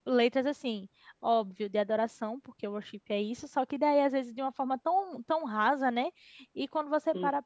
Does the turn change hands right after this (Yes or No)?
No